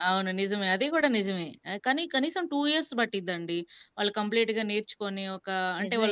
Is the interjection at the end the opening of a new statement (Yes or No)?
Yes